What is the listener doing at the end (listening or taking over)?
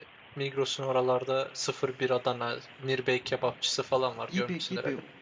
taking over